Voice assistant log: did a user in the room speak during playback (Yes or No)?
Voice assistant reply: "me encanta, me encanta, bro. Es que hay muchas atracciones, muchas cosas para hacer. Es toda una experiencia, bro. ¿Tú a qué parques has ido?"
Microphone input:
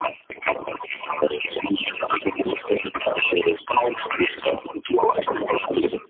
No